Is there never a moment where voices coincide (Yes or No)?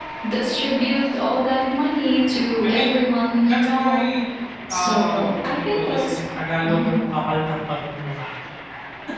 No